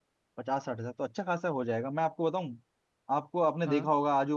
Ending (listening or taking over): listening